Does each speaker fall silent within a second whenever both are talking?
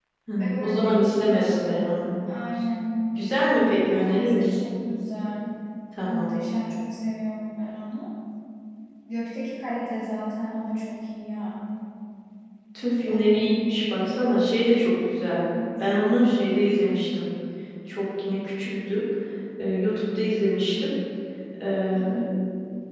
No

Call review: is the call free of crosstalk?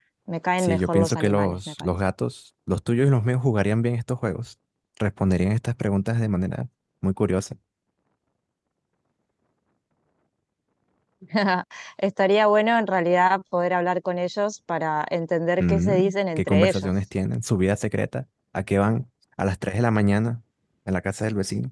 No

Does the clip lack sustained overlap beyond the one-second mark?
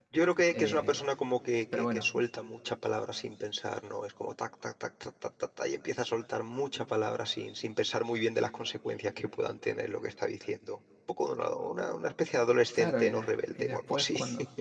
No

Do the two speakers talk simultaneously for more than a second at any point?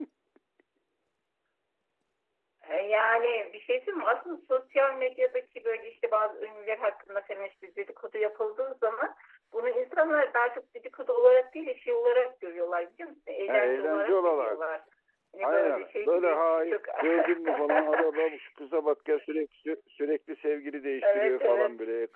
Yes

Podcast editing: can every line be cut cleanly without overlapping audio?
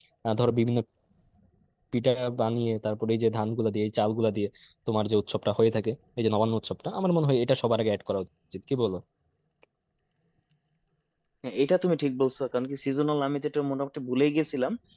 Yes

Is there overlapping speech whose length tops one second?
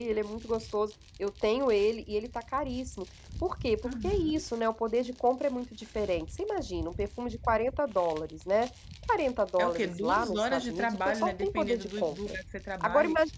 Yes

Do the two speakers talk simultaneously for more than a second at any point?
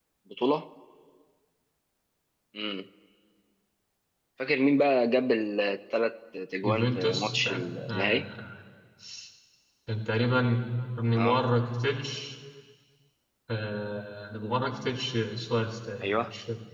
Yes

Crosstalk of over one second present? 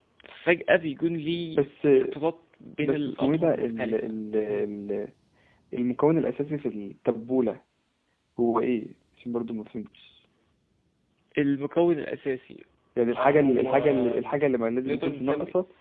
Yes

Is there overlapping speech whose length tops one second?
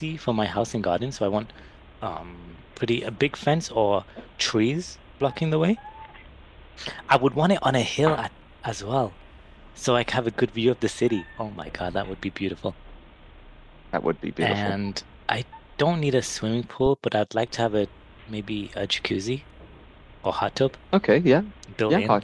No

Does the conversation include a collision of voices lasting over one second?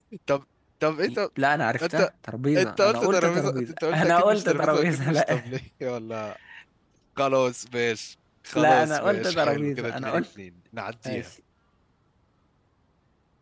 Yes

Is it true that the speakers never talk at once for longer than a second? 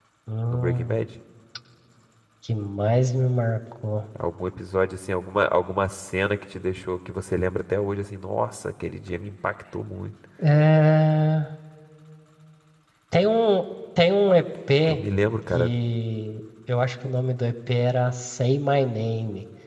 Yes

